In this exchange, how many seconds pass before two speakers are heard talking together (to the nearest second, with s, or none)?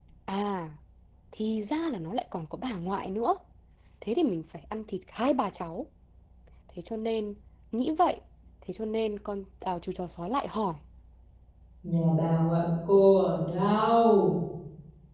none